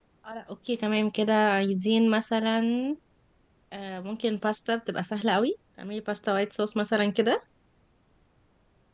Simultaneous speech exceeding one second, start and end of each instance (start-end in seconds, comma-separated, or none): none